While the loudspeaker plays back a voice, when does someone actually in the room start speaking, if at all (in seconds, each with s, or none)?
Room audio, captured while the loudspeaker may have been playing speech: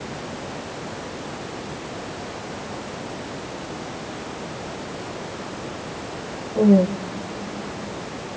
6.5 s